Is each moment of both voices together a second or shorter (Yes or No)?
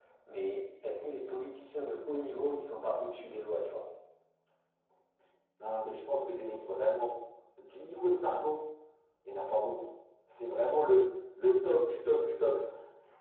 Yes